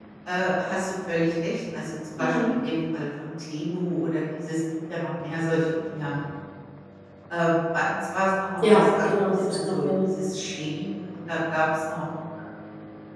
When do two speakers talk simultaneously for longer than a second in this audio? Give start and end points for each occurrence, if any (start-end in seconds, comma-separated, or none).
8.6-10.1